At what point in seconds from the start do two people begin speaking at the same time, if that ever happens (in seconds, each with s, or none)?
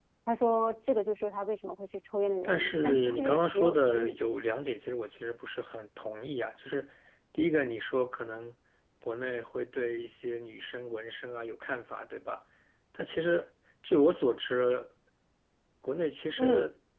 2.4 s